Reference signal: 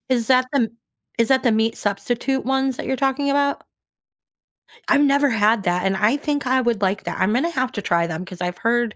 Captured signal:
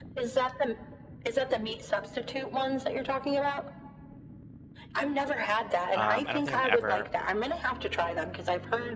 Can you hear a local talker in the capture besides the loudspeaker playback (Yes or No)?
Yes